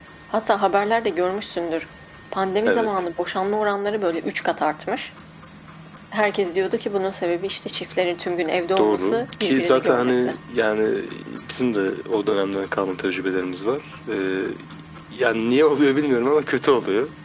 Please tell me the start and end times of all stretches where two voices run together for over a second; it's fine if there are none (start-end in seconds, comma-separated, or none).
8.8-10.3